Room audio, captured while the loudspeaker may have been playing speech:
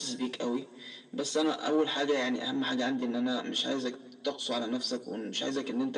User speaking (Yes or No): No